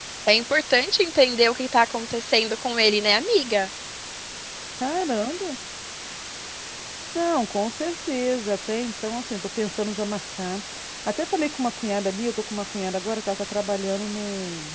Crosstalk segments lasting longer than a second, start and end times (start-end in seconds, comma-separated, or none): none